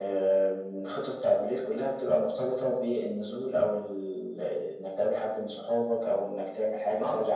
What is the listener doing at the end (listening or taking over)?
taking over